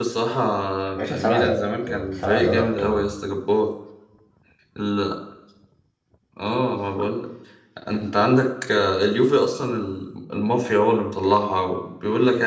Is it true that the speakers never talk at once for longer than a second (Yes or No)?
No